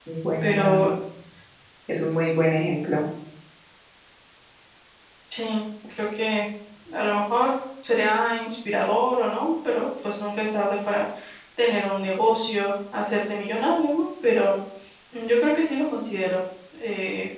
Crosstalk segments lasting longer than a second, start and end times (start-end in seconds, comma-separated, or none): none